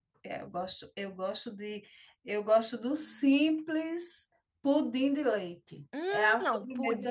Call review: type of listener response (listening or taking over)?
taking over